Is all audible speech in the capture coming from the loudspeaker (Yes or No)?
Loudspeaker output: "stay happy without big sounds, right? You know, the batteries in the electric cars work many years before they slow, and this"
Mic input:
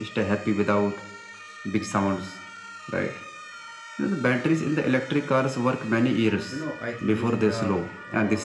No